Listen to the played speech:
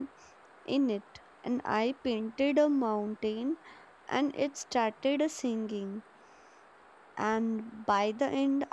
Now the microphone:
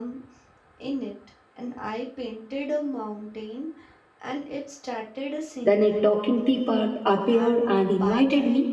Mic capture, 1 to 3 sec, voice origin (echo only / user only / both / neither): echo only